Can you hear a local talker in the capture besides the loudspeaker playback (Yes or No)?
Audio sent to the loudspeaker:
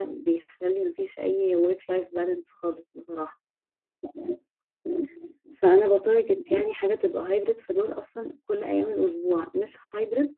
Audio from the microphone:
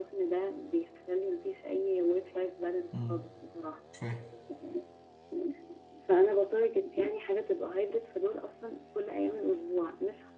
Yes